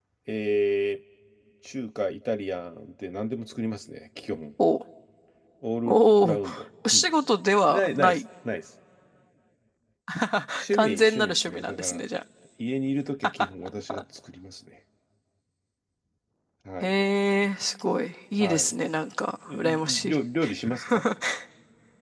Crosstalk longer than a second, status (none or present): present